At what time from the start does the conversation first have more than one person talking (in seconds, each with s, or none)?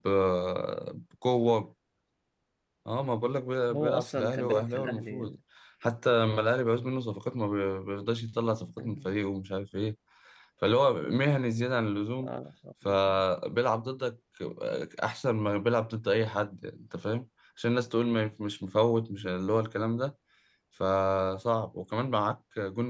3.8 s